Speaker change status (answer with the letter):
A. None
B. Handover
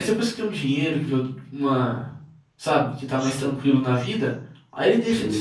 A